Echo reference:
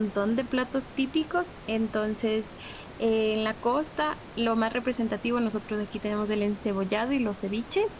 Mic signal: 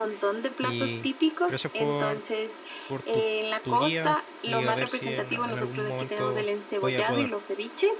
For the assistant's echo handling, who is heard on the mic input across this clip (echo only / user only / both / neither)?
both